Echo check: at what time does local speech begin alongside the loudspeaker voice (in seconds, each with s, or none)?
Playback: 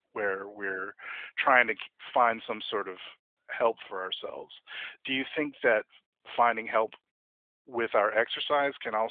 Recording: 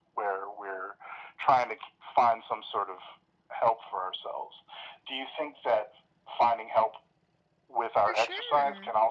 8.0 s